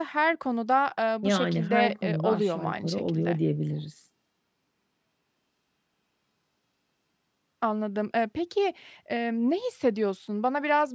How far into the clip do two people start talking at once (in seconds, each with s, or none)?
1.2 s